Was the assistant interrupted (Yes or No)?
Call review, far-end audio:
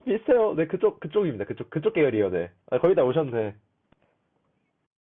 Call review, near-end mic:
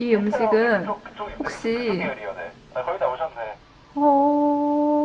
Yes